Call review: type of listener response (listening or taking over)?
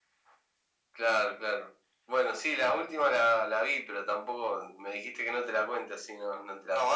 taking over